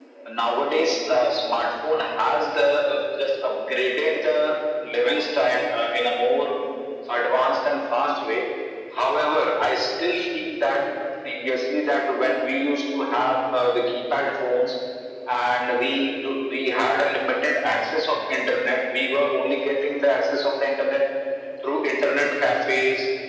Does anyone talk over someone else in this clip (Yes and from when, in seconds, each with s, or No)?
No